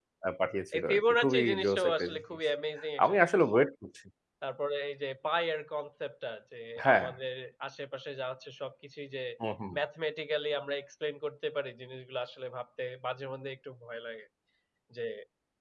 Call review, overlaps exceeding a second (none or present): present